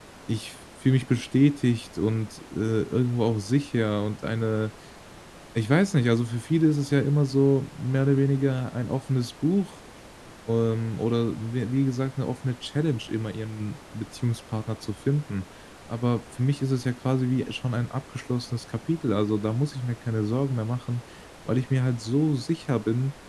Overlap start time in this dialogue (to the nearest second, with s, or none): none